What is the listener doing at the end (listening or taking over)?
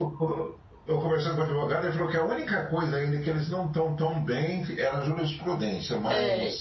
taking over